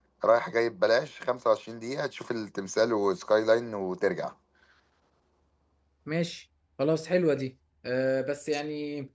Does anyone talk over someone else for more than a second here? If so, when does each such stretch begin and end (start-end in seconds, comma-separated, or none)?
none